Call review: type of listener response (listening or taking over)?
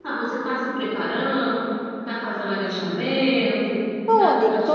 taking over